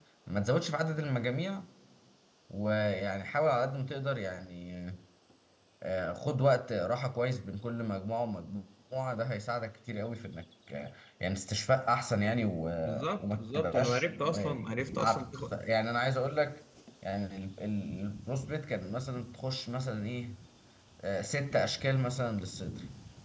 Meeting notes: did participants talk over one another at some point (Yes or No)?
Yes